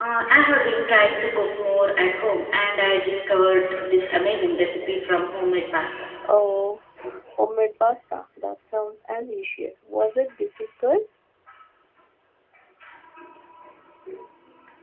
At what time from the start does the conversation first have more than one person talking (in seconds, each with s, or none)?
none